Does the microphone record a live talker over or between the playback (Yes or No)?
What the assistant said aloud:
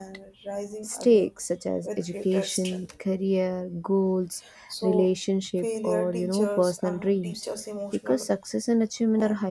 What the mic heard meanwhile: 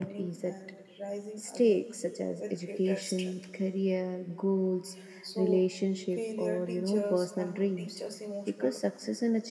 No